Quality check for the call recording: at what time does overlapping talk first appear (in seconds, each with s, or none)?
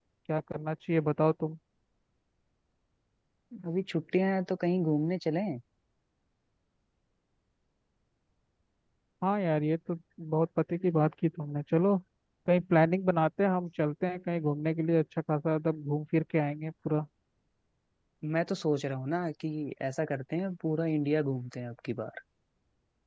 none